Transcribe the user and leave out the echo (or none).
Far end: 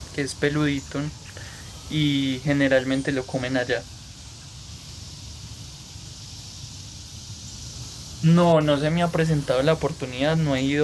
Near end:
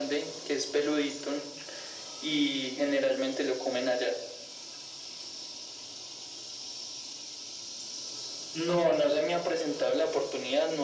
none